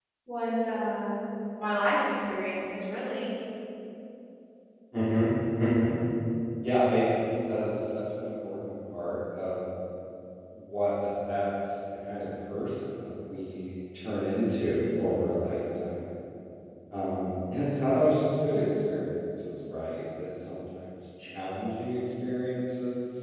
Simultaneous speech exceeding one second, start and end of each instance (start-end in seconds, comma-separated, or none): none